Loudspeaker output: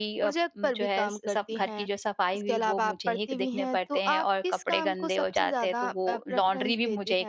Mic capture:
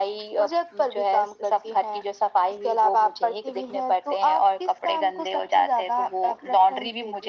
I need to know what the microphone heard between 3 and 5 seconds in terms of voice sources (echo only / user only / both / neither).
echo only